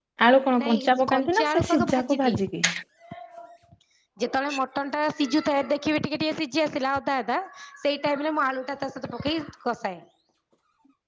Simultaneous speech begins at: 0.6 s

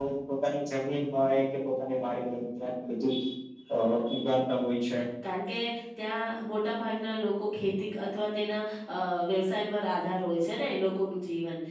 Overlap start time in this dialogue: none

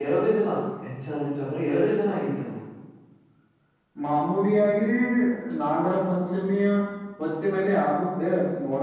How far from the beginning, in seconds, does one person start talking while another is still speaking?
none

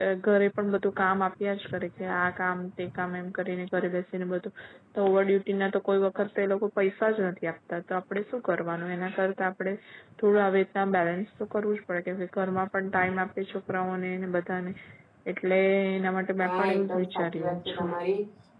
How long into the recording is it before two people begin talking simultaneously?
16.4 s

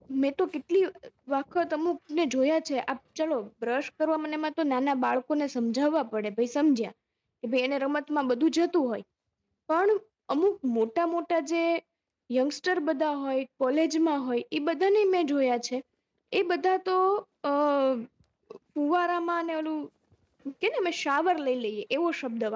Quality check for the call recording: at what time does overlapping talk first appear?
none

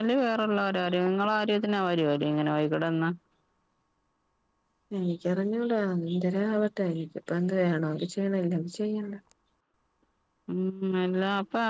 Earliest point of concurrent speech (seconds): none

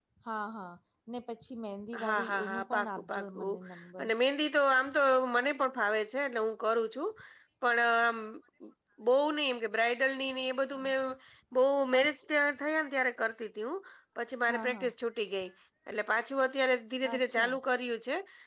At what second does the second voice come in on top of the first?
2.0 s

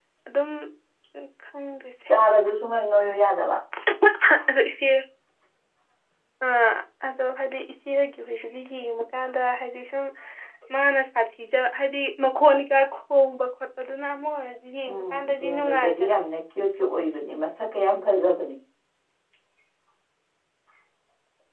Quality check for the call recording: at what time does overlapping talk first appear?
14.9 s

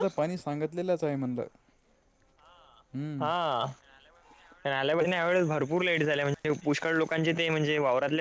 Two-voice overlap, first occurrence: none

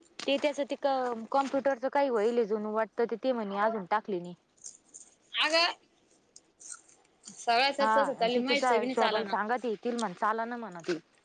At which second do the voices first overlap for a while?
7.8 s

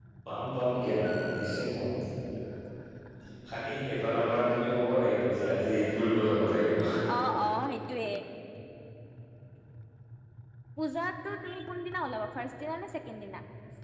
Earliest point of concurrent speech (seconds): none

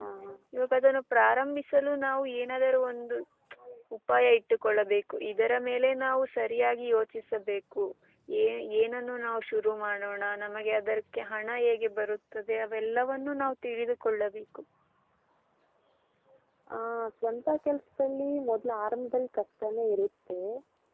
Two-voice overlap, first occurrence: none

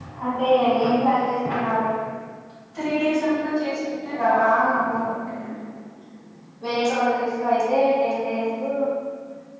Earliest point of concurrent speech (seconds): 4.2 s

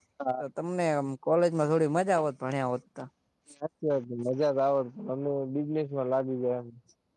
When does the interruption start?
none

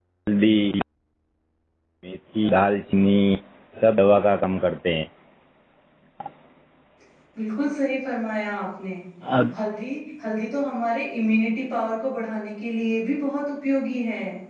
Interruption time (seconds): none

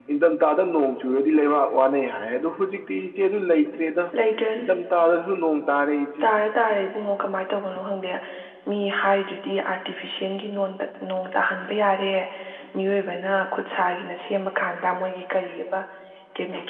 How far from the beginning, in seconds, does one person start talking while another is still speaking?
none

